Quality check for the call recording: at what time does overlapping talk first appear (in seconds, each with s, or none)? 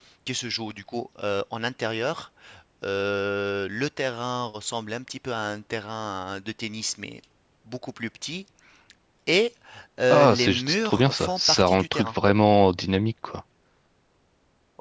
10.1 s